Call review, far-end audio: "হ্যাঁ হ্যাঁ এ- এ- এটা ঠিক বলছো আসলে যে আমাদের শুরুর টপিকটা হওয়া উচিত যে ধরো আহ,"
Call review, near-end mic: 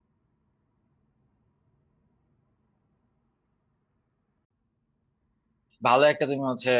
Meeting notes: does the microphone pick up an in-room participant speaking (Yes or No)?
Yes